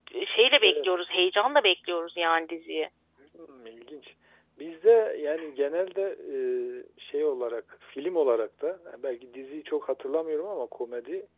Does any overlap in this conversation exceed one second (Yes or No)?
No